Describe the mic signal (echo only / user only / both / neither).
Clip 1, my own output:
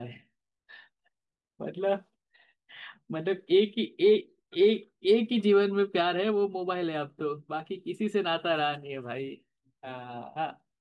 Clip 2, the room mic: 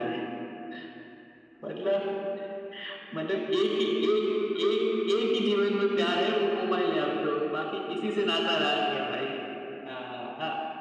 echo only